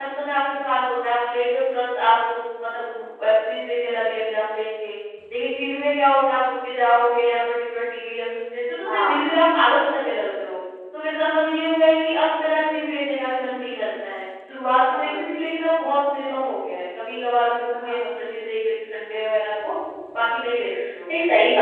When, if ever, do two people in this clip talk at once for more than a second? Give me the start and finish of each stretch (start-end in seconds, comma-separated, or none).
none